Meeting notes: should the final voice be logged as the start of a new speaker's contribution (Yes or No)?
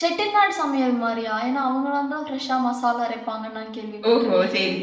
Yes